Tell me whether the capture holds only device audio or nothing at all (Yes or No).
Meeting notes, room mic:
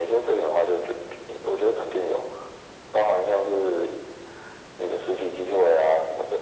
Yes